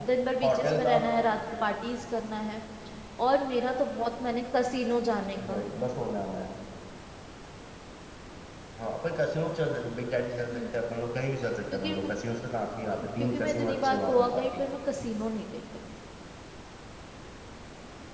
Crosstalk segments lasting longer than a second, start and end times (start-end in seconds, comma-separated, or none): 13.2-14.6